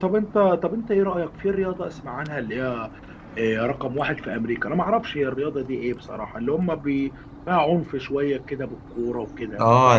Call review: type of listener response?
taking over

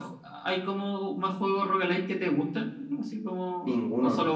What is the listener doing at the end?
taking over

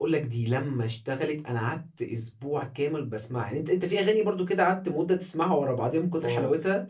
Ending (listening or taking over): taking over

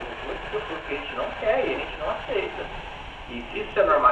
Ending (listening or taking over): listening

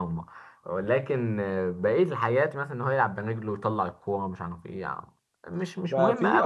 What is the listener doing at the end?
taking over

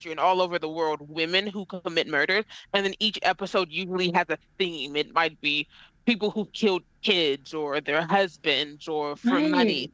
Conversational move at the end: listening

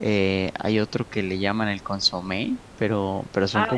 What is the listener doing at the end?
taking over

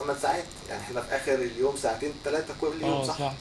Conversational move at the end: taking over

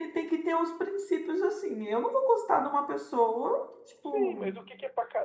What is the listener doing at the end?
taking over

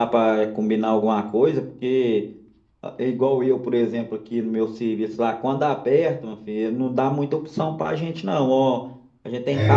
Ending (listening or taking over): listening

